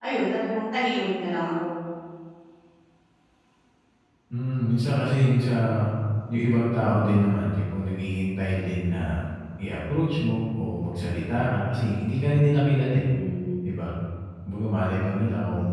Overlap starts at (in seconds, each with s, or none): none